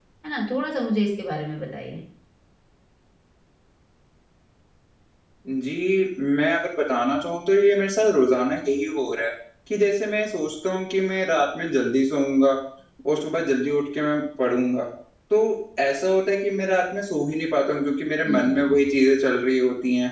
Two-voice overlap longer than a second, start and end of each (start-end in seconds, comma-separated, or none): none